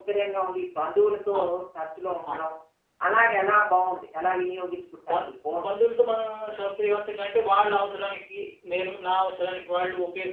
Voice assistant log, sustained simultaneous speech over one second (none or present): none